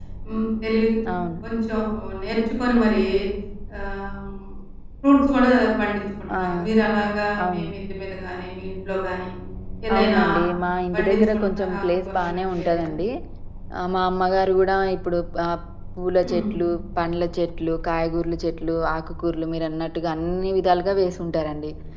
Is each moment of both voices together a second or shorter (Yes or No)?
No